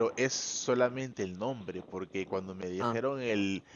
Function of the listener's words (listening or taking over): listening